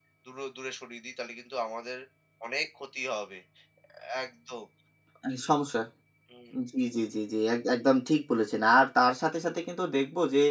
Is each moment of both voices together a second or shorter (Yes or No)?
Yes